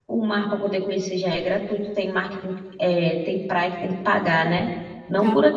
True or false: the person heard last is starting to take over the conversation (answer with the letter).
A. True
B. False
B